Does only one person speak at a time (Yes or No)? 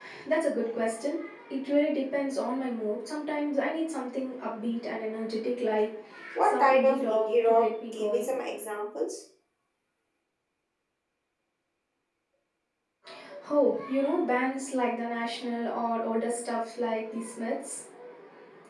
No